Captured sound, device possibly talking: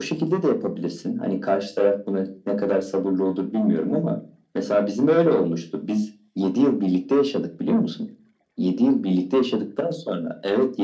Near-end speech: none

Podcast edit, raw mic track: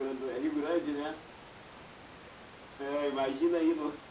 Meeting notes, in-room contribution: none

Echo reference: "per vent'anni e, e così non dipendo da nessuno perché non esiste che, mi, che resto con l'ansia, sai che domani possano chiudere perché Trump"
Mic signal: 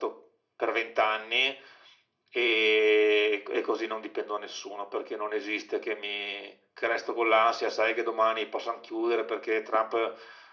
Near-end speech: none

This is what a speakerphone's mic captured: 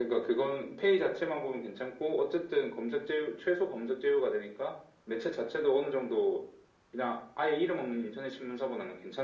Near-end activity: none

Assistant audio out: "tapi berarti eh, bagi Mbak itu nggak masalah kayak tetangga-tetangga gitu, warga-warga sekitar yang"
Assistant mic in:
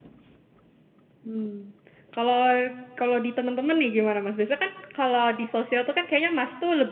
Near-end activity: present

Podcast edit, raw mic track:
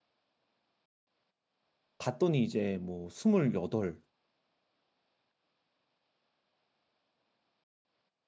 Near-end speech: present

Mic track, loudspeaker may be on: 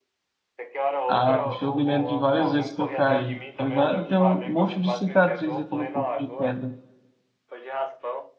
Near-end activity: present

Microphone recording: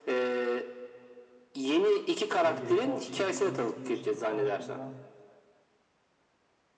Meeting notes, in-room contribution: present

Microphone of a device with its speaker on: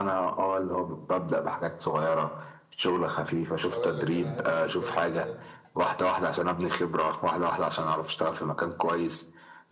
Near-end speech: present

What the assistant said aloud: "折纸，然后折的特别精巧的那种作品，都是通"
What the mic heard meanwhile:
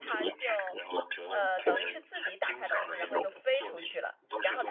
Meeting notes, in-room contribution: present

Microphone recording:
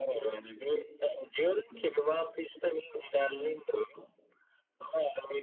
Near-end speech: none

